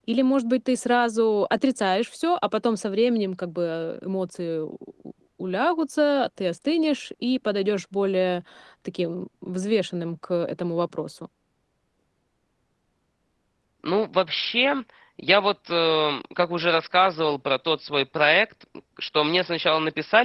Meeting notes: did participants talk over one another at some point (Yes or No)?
No